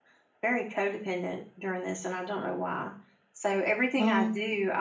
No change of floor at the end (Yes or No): Yes